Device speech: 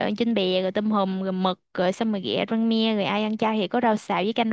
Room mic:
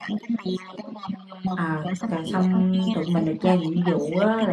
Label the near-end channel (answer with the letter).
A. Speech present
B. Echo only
A